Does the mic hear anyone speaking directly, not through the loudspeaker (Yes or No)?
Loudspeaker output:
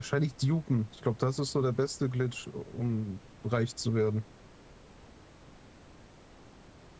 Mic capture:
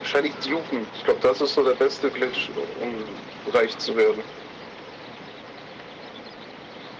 No